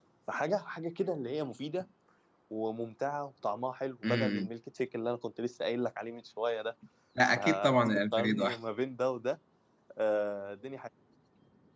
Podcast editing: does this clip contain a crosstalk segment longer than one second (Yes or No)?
Yes